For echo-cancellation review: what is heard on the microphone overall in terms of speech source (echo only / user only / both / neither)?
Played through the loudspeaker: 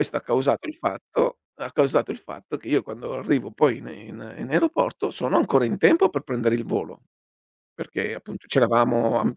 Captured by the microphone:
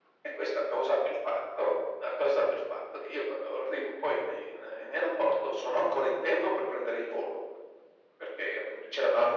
echo only